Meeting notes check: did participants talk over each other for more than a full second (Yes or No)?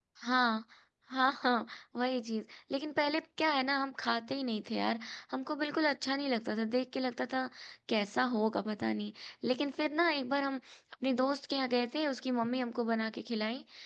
No